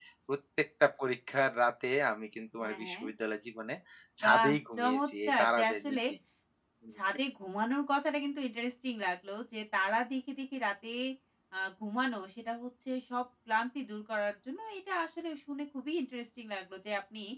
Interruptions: present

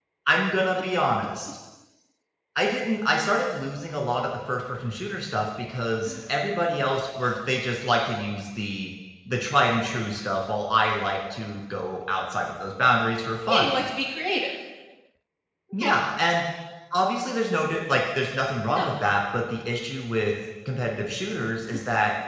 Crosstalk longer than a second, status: none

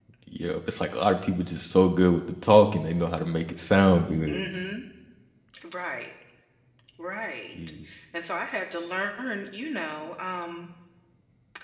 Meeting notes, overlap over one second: none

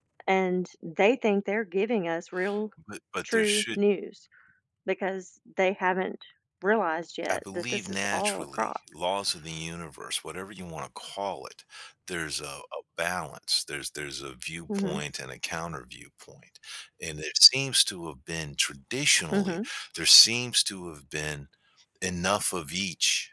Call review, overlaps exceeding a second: present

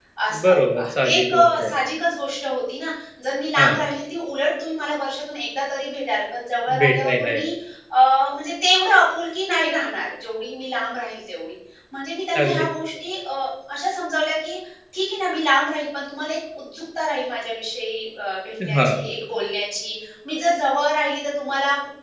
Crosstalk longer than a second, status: present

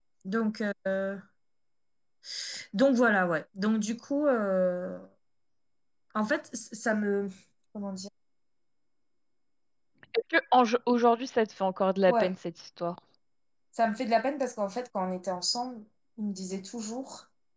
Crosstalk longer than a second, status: none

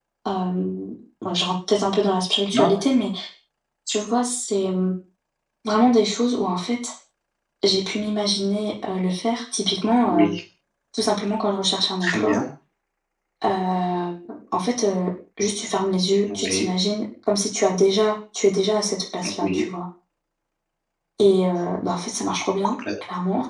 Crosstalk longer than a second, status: none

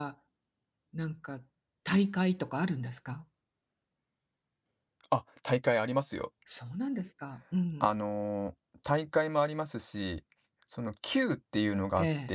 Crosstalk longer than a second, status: none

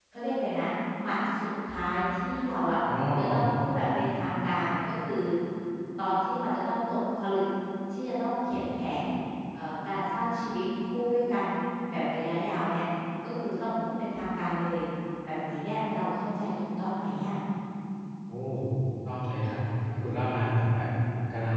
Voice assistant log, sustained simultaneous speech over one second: none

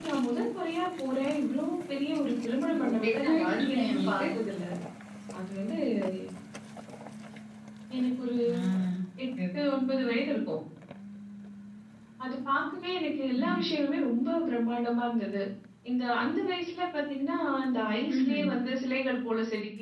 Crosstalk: present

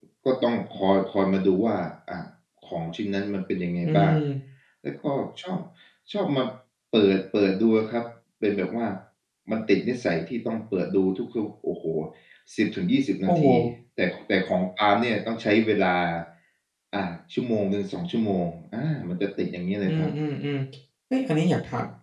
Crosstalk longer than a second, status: none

